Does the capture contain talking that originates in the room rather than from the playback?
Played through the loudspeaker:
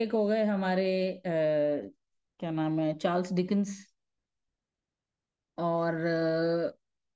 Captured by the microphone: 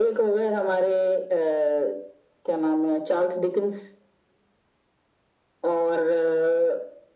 No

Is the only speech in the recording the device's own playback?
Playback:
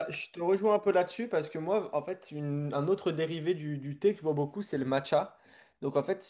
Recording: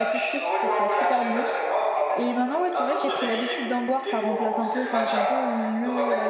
No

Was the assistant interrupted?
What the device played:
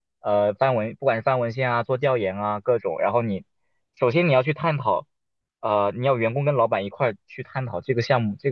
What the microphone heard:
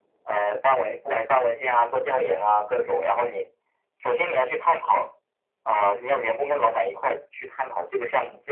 No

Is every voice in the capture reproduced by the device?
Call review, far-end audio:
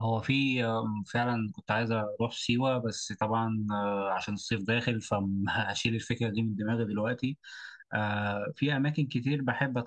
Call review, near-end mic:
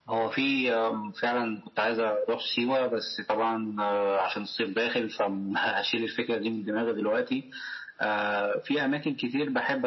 Yes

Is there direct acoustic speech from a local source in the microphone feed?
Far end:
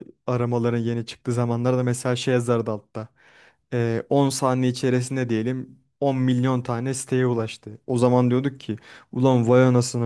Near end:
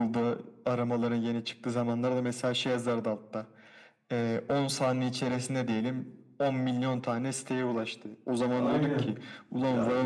Yes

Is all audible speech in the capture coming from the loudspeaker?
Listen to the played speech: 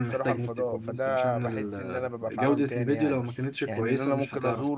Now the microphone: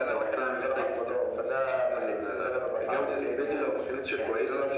Yes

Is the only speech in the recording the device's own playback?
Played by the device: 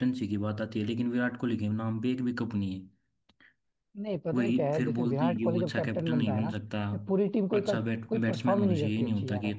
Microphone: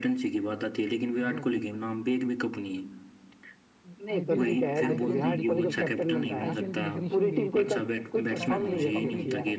No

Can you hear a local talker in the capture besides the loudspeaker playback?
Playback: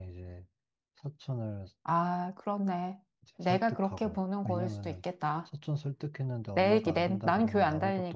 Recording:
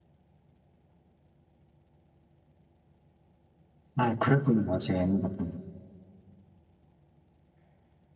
Yes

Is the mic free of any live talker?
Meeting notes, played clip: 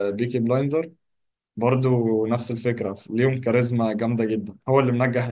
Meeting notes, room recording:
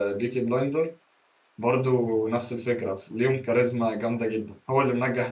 Yes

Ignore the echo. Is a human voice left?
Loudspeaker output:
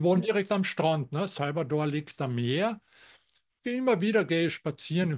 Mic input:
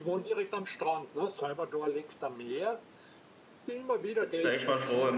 Yes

